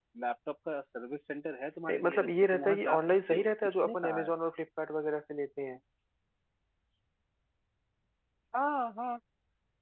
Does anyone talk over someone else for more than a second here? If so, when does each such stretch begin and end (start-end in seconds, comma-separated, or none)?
1.9-4.3